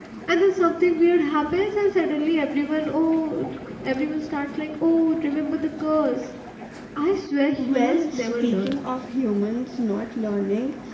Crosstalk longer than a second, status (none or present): present